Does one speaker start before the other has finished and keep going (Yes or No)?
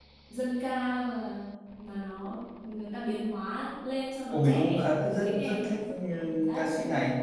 Yes